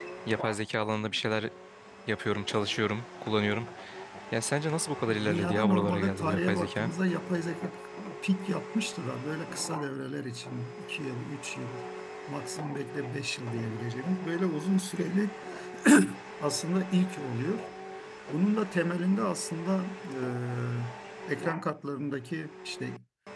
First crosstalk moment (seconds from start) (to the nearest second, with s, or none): 5 s